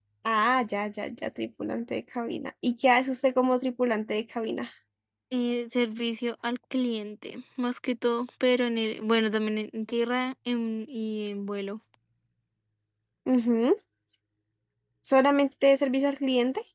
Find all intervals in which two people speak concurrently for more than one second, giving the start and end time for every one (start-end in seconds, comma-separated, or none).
none